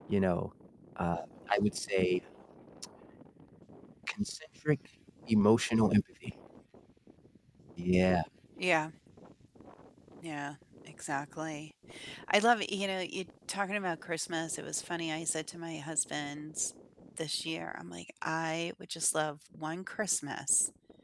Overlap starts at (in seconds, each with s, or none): none